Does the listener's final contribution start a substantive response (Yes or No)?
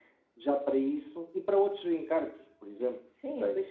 Yes